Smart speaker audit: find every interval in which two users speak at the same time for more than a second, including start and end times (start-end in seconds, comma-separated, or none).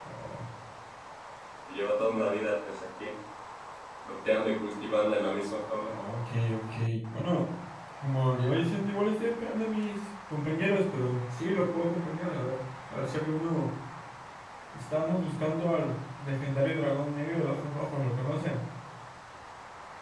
none